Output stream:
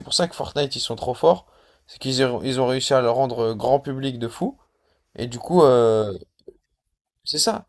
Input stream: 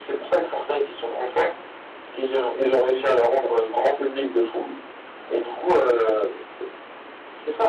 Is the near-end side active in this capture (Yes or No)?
No